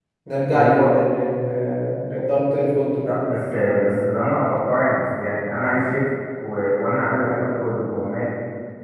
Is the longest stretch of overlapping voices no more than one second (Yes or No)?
Yes